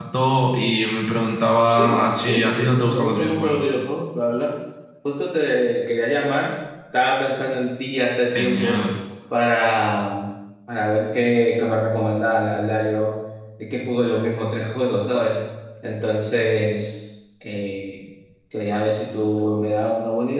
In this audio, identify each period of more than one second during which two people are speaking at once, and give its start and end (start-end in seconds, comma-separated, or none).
1.7-3.7